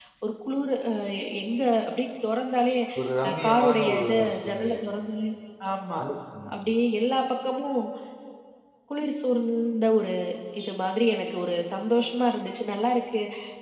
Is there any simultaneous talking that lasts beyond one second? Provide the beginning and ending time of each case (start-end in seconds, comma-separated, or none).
3.3-4.8